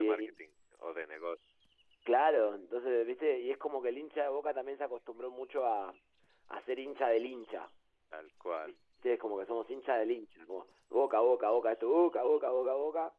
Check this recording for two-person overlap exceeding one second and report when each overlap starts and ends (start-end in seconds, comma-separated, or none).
none